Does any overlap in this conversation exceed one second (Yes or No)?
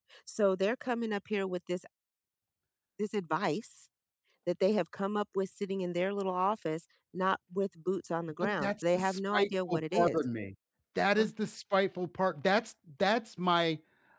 Yes